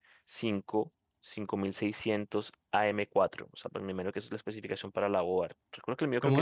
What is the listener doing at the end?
taking over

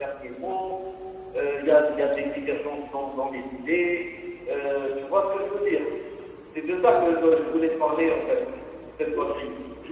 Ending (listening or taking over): taking over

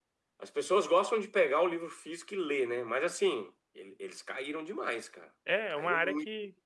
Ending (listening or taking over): taking over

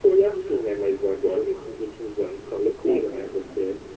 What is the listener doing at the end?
listening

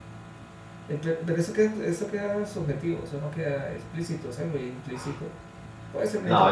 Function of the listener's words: taking over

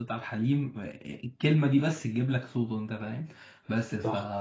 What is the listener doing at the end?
listening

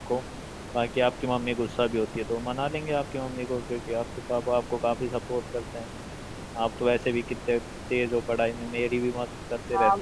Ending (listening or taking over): taking over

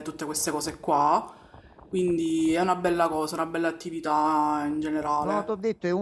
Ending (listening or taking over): taking over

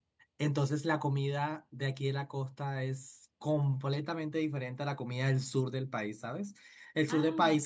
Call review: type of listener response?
listening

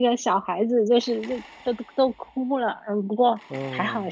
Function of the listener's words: listening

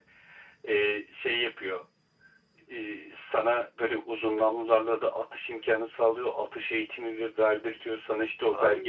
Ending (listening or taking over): taking over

